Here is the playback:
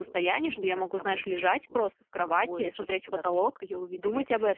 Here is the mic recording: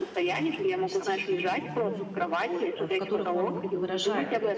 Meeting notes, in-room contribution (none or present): present